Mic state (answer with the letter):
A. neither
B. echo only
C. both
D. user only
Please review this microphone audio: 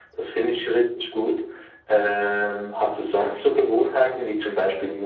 B